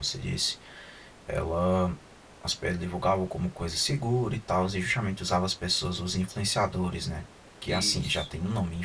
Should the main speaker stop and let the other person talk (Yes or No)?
No